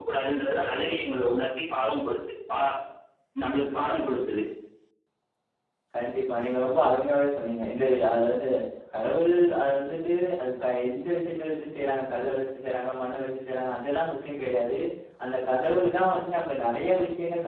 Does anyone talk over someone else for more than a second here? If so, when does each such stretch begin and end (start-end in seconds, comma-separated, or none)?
none